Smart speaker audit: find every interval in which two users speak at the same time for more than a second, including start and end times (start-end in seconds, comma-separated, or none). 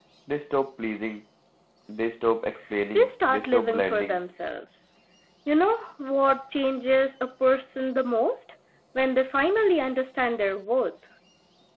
2.9-4.2